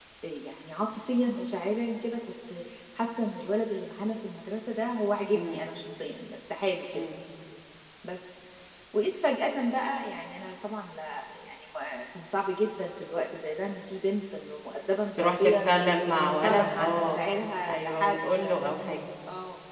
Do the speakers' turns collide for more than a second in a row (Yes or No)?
Yes